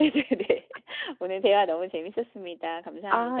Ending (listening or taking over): taking over